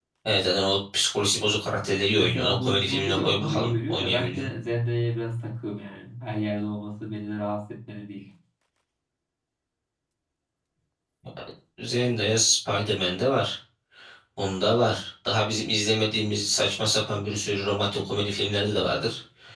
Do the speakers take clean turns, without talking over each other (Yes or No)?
No